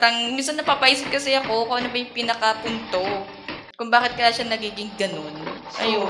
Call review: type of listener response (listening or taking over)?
taking over